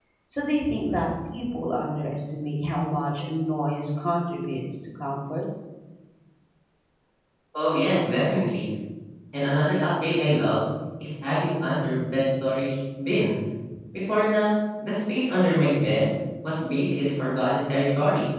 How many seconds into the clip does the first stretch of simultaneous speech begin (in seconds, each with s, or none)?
none